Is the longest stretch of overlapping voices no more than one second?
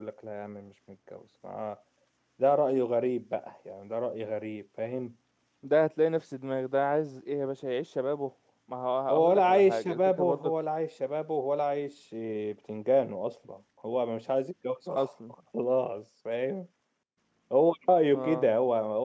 No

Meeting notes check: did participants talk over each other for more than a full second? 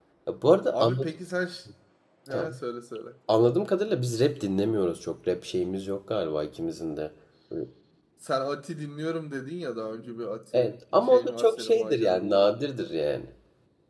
Yes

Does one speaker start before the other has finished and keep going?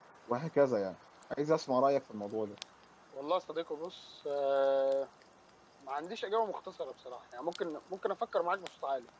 No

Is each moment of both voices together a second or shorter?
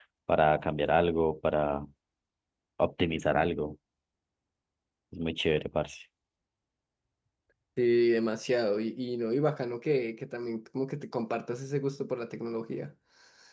Yes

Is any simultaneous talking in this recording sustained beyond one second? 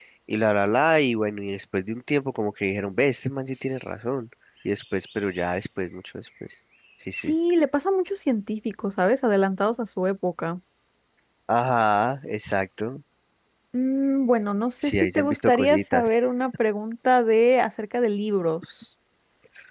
Yes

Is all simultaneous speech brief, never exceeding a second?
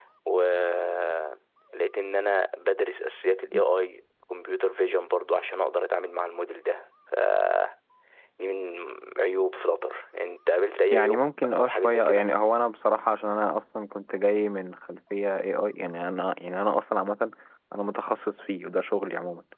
No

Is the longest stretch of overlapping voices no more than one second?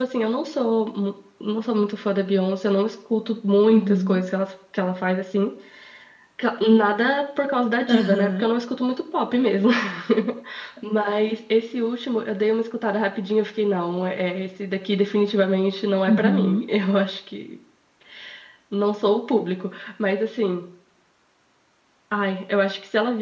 Yes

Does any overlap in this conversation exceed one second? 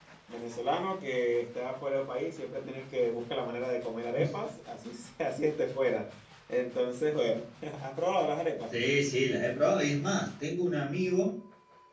No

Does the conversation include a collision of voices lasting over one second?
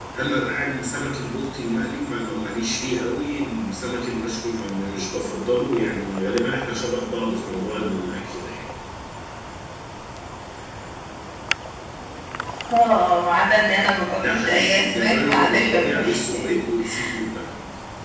Yes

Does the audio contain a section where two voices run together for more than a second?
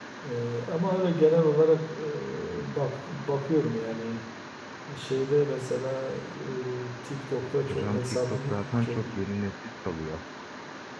Yes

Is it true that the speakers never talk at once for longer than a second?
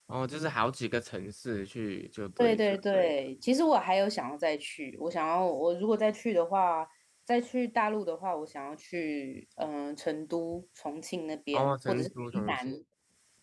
No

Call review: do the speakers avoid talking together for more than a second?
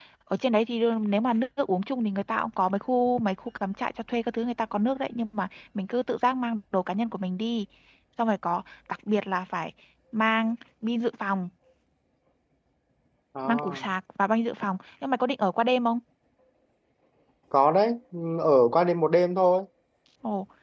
Yes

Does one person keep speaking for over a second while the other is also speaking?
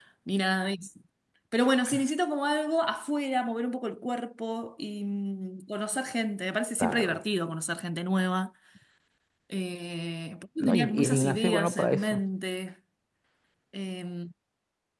Yes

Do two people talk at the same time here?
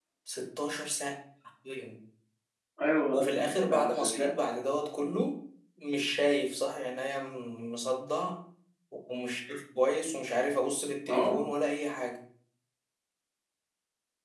Yes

